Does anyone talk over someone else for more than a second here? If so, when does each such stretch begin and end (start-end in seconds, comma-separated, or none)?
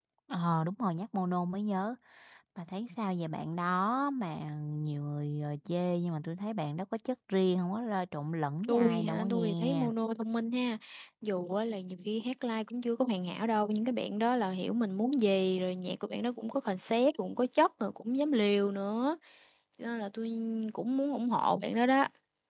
8.7-9.9